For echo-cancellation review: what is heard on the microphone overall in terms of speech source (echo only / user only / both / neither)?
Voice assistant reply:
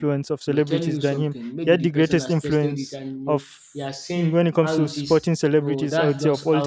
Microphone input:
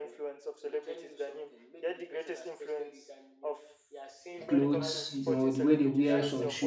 both